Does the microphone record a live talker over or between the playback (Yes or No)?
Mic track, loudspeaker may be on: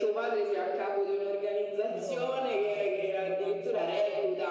Yes